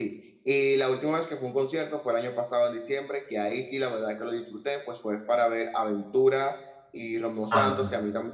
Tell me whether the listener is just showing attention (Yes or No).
Yes